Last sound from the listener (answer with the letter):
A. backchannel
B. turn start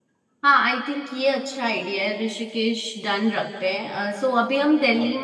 A